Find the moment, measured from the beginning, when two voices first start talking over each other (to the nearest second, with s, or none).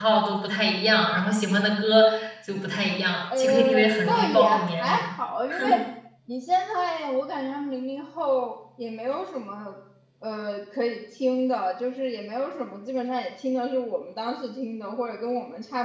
3 s